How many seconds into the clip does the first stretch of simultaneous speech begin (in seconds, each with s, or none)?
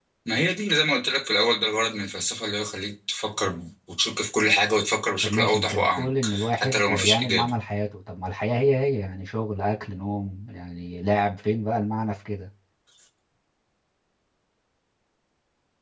5.2 s